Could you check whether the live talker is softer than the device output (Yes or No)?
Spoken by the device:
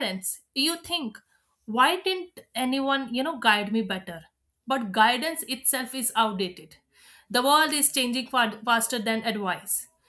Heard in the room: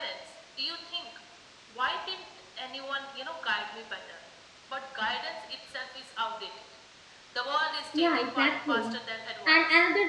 No